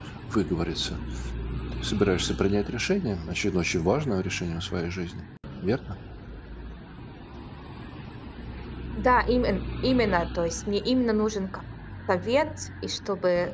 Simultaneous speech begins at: none

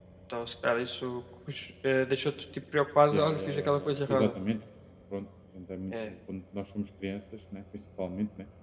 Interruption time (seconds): 3 s

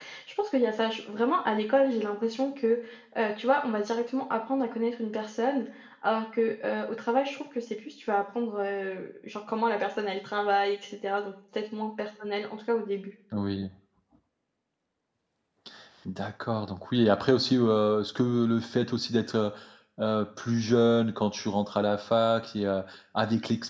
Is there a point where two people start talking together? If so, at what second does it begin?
none

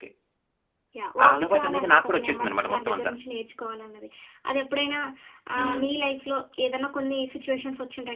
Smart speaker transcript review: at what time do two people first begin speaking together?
1 s

